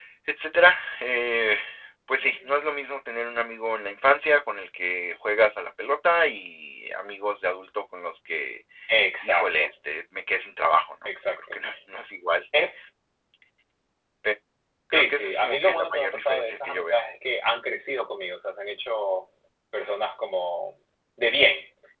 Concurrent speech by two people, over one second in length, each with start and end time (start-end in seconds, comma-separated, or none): 14.9-17.0